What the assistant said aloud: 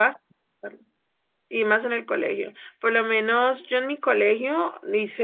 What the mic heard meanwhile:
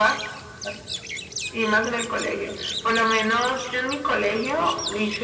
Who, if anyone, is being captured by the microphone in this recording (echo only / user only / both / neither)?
echo only